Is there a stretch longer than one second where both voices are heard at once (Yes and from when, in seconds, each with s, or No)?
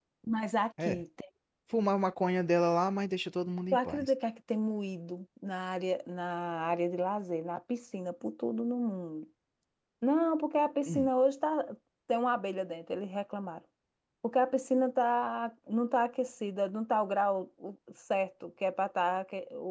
No